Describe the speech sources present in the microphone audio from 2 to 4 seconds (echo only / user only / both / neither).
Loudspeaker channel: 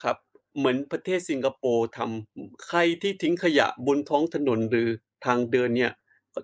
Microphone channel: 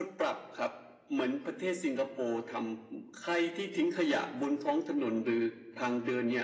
echo only